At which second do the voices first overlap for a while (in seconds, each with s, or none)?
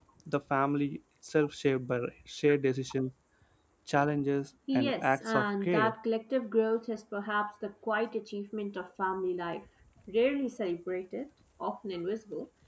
4.7 s